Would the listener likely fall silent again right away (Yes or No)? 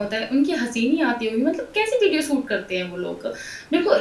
No